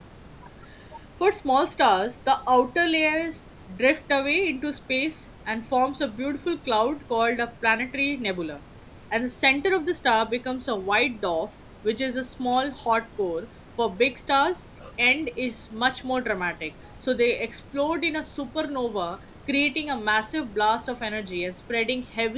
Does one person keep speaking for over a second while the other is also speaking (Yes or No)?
No